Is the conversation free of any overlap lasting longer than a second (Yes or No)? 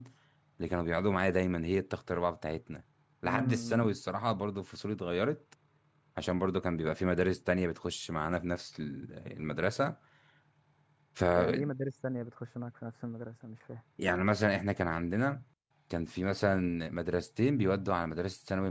Yes